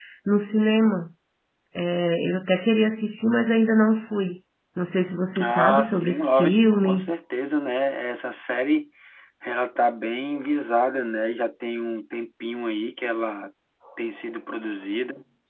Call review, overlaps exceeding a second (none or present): present